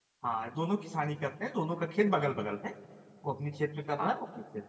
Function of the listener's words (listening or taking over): listening